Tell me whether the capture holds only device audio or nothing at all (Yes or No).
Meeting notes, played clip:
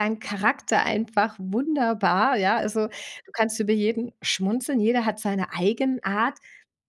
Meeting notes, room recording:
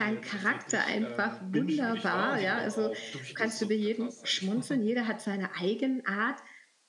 No